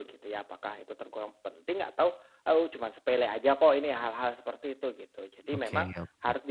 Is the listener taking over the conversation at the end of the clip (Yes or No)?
No